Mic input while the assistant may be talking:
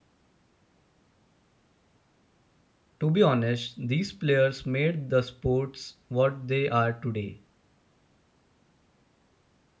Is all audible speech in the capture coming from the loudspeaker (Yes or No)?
No